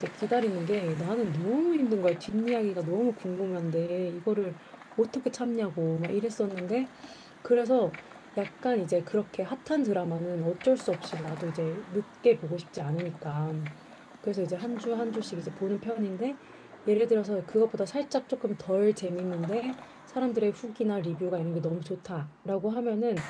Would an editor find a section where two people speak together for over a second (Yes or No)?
No